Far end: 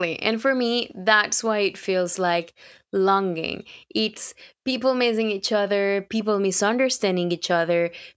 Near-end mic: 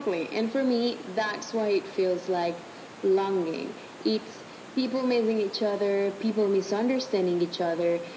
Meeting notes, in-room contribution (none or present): none